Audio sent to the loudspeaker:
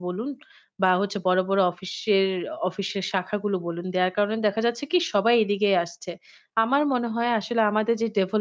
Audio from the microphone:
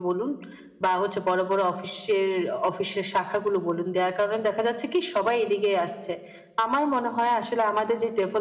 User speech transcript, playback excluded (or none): none